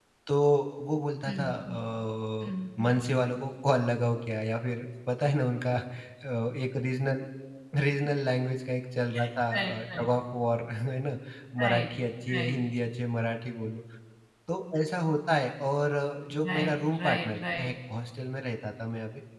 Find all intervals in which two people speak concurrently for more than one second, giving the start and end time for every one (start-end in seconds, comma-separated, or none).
16.5-17.7